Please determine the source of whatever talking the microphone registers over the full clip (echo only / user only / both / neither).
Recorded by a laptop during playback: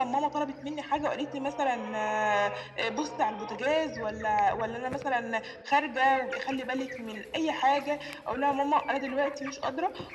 echo only